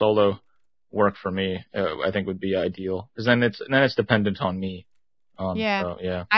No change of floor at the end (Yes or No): No